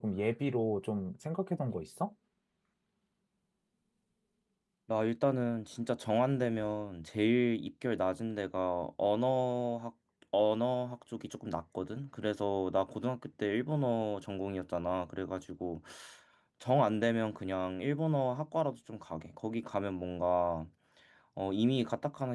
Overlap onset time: none

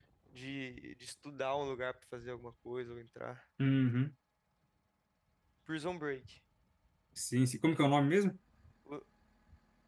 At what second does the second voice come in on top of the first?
none

